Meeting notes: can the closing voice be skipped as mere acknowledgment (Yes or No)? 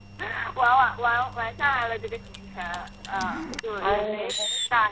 Yes